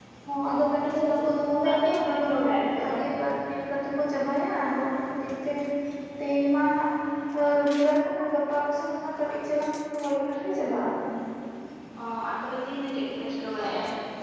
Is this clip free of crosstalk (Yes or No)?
No